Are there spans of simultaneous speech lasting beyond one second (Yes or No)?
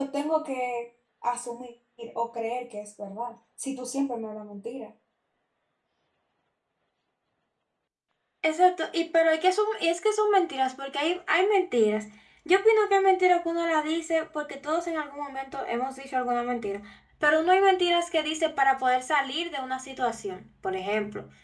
No